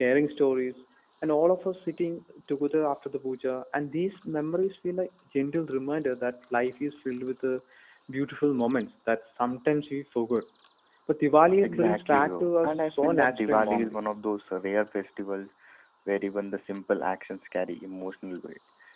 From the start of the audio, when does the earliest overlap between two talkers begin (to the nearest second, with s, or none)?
12 s